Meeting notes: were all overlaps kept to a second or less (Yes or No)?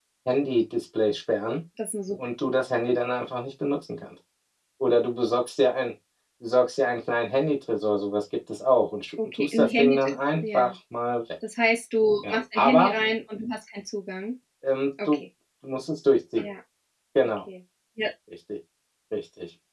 No